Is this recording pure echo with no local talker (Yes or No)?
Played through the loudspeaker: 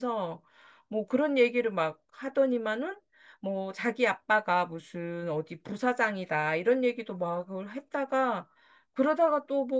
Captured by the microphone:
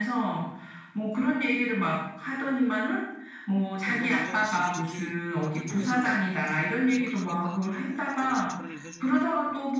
No